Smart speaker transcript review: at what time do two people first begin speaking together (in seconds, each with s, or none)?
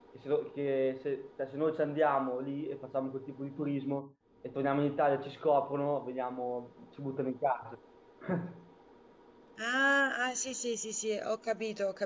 none